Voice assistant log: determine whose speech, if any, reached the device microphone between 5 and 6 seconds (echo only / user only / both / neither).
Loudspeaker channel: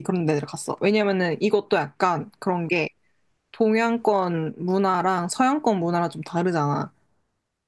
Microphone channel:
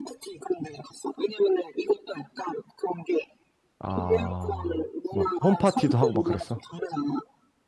both